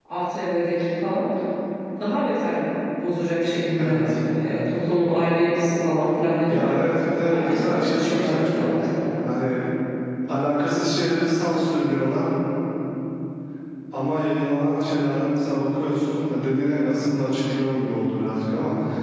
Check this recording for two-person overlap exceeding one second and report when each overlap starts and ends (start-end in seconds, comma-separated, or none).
7.3-8.7